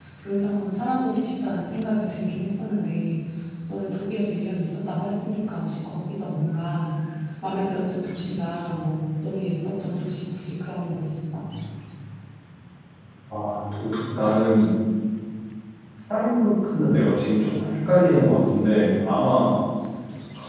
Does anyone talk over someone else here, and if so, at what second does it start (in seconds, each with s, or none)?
none